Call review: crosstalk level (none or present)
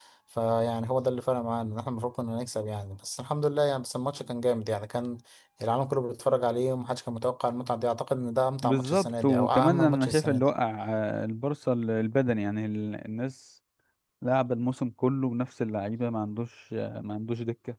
present